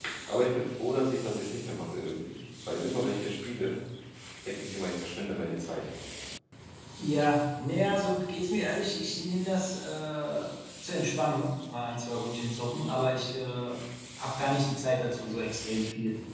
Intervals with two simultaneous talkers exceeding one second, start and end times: none

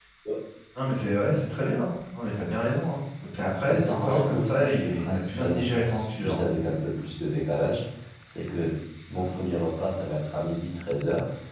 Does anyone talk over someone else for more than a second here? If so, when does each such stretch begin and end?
3.7-6.4

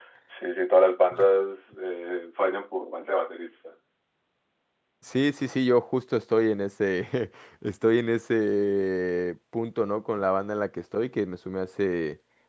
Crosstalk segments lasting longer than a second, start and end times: none

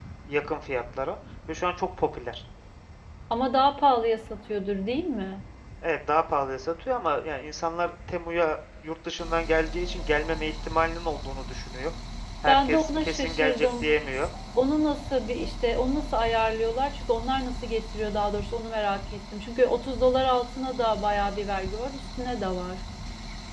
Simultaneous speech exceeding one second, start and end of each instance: 12.5-13.9

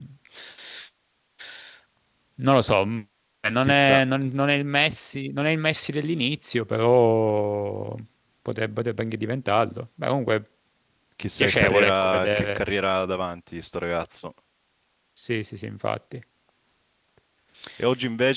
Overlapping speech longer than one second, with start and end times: 11.4-12.6

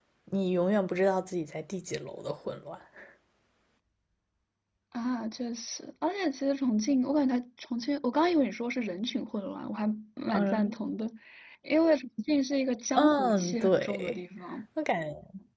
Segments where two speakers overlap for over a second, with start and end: 12.9-14.2

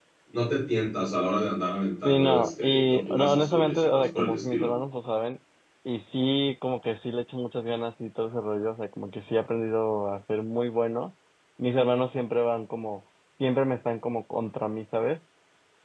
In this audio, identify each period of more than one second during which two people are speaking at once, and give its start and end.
2.0-4.7

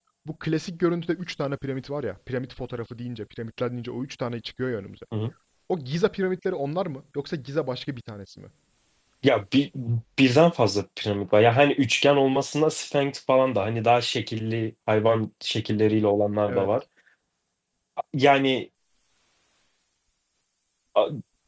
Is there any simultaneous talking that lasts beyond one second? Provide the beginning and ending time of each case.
none

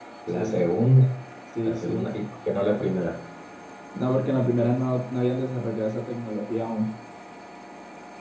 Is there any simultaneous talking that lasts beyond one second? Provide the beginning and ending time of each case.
none

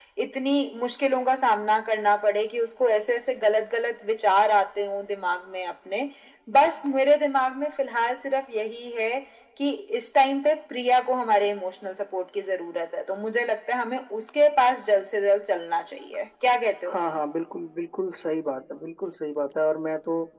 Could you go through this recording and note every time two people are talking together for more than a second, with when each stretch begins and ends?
none

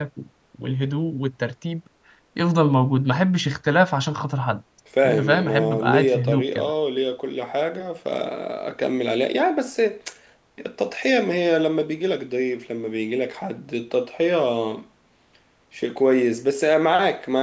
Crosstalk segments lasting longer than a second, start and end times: 5.0-6.7

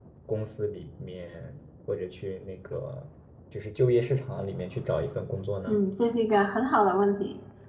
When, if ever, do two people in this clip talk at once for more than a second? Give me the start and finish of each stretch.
none

